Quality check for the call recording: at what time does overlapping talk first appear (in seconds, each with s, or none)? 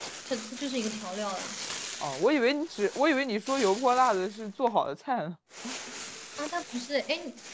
none